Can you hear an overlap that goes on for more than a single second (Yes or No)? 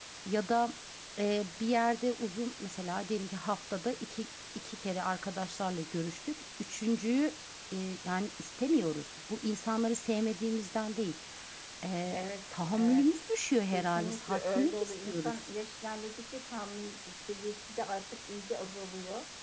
Yes